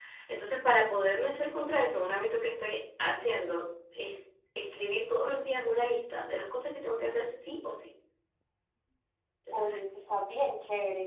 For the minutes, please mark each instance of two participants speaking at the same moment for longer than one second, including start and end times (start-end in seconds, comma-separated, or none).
none